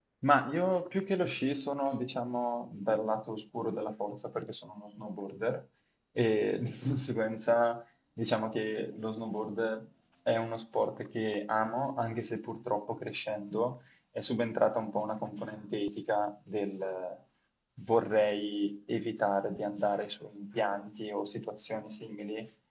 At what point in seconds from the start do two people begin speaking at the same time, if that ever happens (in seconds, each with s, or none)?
none